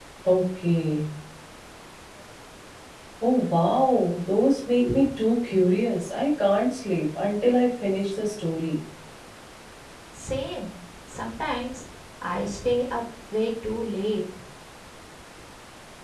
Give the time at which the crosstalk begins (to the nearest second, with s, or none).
none